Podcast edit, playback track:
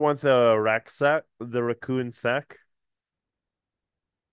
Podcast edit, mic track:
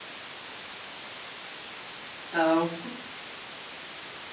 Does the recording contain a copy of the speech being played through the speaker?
No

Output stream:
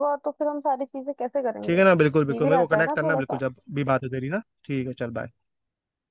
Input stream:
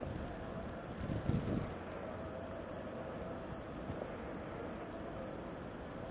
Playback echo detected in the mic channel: No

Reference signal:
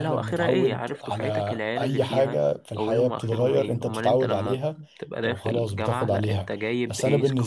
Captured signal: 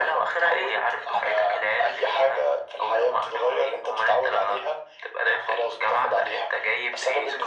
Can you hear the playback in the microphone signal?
Yes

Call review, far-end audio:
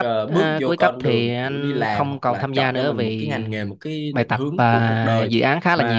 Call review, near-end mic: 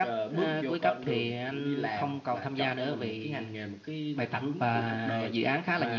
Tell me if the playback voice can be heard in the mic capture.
Yes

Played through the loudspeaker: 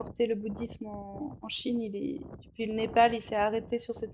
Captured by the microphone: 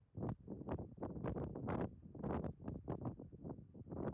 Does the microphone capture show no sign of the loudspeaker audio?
Yes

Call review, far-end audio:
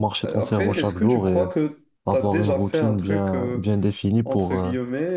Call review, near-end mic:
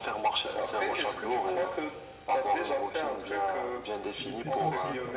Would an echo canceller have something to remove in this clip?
Yes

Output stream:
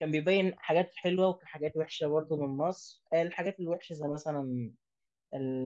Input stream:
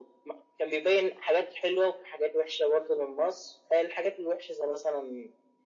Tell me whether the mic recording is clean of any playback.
No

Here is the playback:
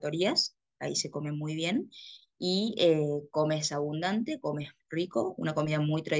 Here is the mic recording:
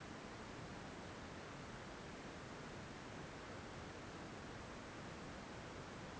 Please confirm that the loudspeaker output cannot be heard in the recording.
Yes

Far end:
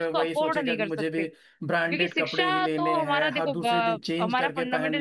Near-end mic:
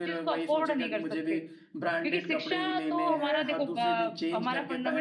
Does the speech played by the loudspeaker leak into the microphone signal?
Yes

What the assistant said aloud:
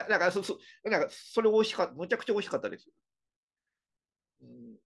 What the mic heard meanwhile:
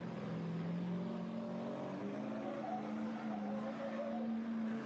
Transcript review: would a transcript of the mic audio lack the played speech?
Yes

